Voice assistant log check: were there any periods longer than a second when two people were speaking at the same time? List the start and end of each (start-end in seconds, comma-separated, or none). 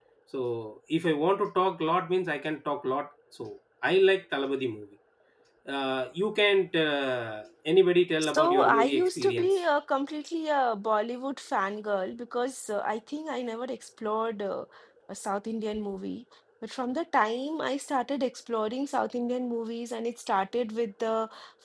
8.2-9.6